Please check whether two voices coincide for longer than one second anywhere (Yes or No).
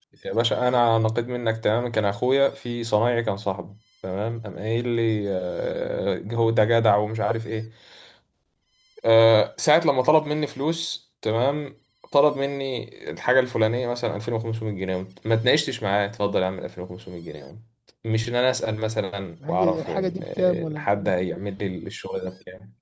Yes